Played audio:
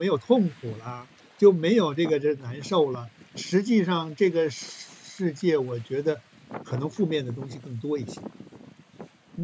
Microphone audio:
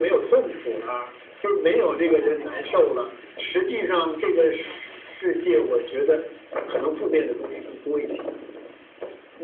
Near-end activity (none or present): present